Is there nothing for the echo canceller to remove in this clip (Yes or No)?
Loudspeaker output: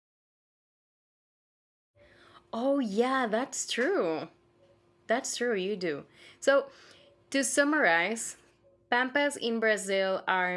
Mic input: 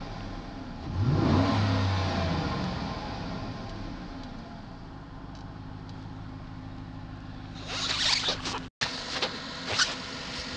Yes